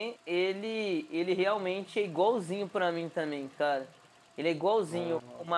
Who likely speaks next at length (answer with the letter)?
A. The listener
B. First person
B